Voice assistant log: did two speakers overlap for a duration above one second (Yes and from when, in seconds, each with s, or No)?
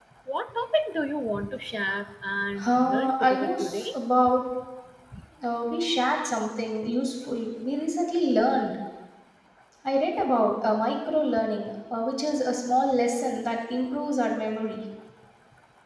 Yes, from 2.6 s